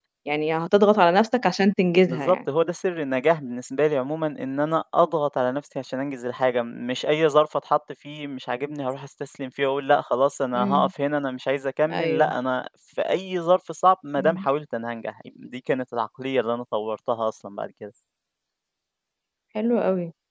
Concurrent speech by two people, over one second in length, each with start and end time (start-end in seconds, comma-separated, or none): none